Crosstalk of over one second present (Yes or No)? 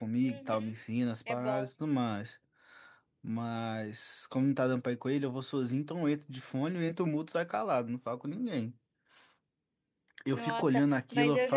Yes